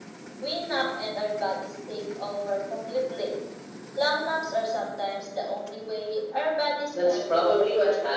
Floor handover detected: Yes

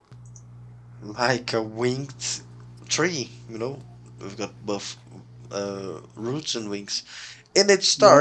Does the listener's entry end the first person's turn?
No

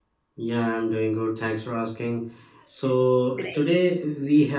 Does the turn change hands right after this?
No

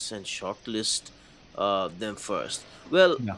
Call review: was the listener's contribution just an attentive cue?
Yes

